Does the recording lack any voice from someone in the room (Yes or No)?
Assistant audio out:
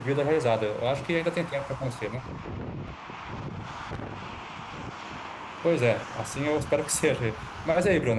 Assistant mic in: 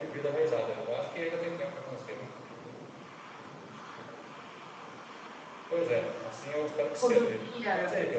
No